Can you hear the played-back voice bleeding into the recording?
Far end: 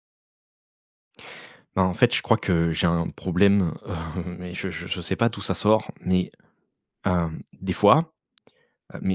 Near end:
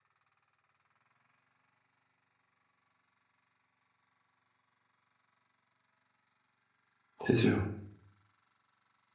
No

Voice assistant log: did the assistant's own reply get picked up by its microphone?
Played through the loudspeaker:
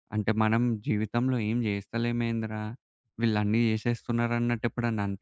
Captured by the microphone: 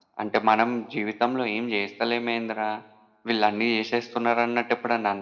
Yes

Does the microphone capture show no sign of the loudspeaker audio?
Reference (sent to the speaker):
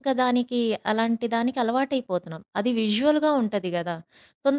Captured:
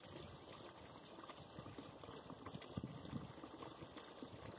Yes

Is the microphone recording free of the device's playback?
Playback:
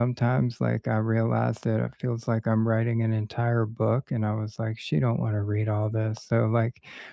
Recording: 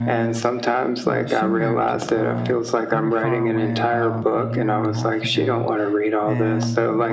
No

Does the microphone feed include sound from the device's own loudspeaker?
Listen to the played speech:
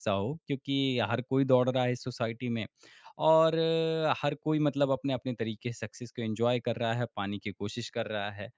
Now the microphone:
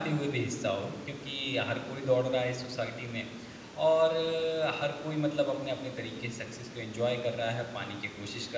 Yes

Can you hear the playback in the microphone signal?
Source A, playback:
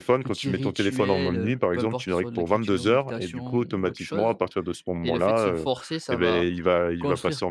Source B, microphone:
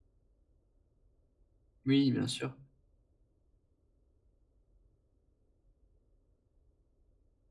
No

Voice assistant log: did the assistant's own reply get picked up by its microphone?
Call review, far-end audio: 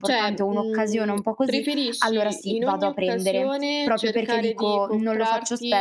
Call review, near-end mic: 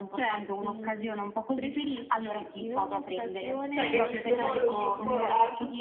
Yes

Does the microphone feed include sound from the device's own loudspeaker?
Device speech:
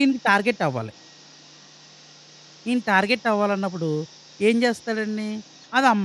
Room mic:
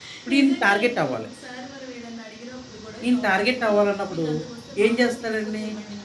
Yes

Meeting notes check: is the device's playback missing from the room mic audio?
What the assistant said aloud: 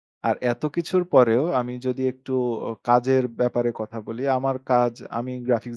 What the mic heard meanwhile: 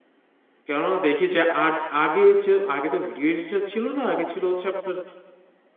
Yes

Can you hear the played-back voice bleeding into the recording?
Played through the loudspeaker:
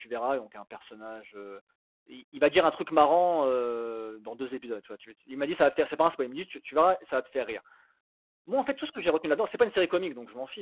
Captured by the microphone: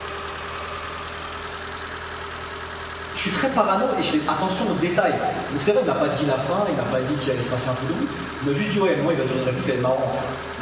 No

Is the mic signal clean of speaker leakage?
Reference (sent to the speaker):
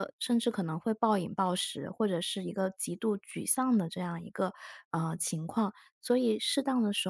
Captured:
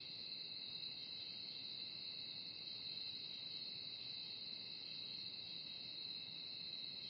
Yes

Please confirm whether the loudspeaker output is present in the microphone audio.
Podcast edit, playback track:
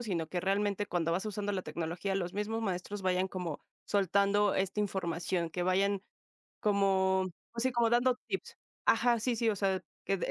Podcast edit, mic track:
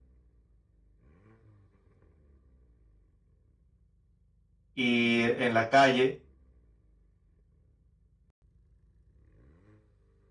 No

